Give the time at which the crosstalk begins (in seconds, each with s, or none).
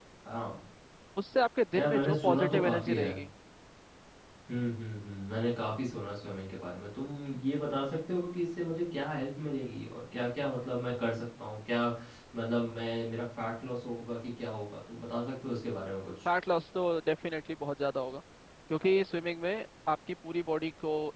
1.8 s